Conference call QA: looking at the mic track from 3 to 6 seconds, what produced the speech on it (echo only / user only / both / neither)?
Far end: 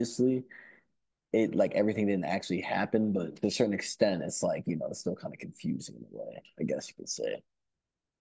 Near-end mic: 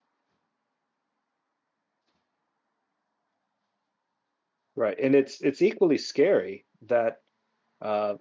user only